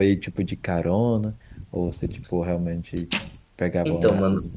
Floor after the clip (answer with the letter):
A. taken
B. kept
A